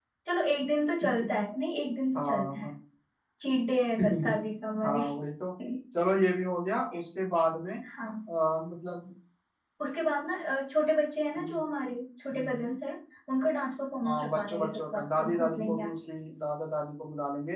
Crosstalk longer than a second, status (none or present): present